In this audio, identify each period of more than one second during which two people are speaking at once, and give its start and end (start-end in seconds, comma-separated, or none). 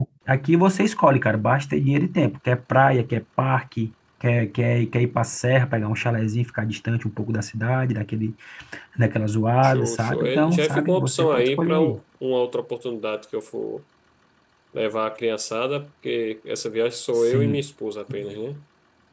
9.6-12.0